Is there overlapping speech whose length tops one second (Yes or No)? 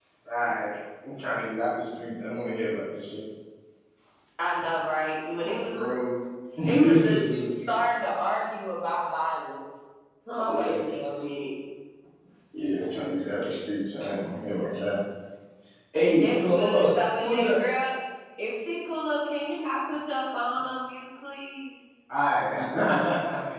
Yes